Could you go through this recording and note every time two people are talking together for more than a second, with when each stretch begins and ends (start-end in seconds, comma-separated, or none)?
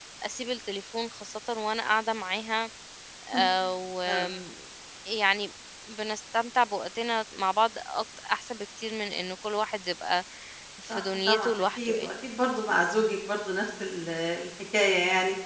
10.9-12.1